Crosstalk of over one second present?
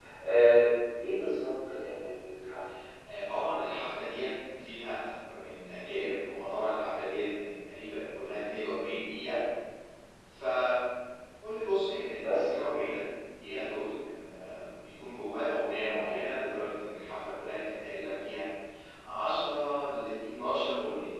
No

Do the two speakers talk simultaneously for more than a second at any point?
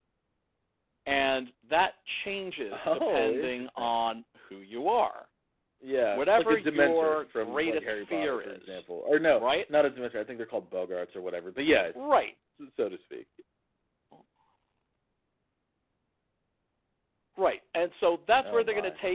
Yes, from 2.7 s

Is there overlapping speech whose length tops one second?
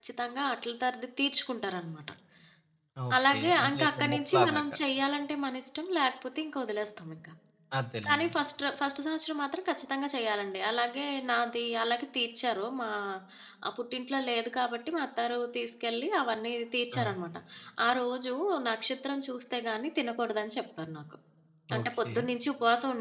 Yes, from 3.3 s

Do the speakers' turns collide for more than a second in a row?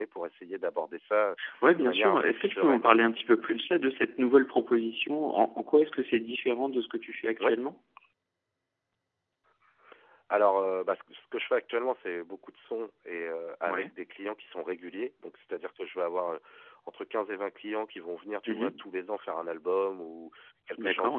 Yes, from 1.8 s

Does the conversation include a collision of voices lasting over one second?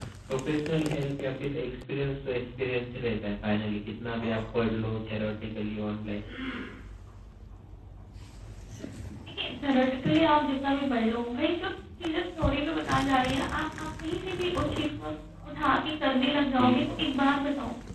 No

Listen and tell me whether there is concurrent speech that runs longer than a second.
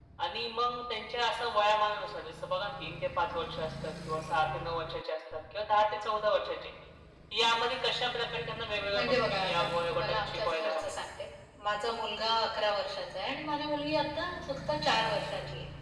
Yes, from 8.9 s

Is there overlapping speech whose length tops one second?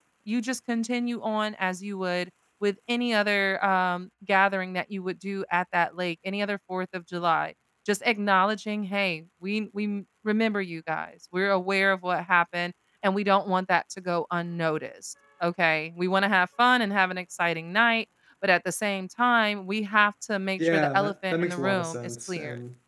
Yes, from 20.6 s

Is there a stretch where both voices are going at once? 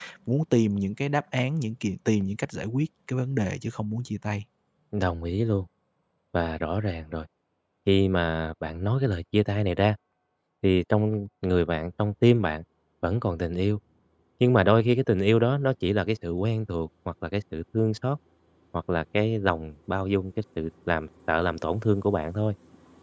No

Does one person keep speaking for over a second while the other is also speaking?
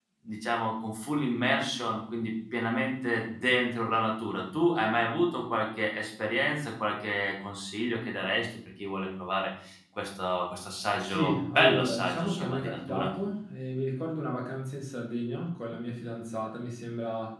Yes, from 11.0 s

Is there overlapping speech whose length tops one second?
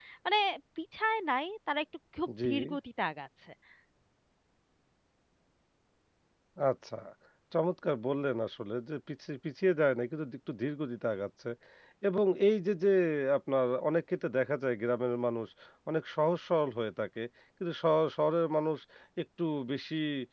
No

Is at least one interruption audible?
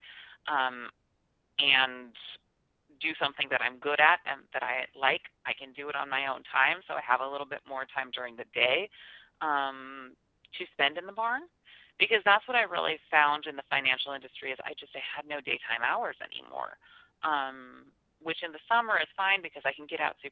No

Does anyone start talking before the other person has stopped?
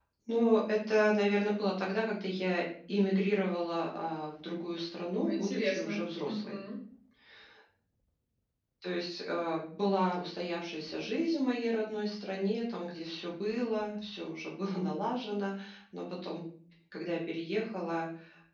Yes, from 5.1 s

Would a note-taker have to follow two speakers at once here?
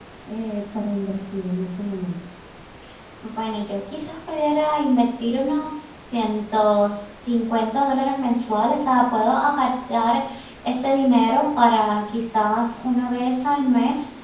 No

